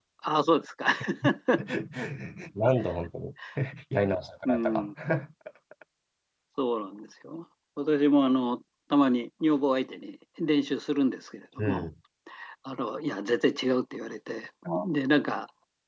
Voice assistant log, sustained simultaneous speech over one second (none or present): none